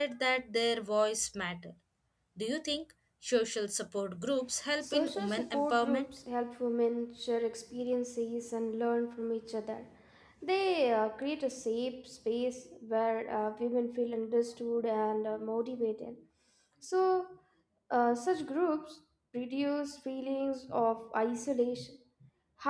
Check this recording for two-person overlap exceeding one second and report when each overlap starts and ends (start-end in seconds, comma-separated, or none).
4.8-6.1